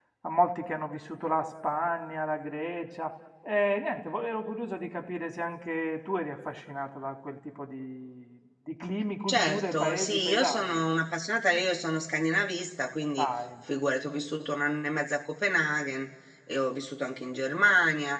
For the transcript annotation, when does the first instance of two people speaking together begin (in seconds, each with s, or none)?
9.3 s